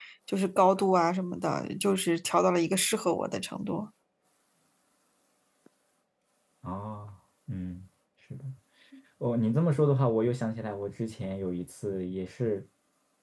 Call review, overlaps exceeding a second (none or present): none